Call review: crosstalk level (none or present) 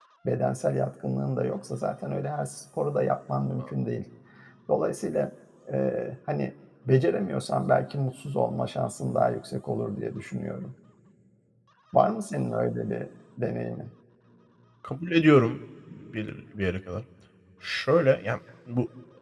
none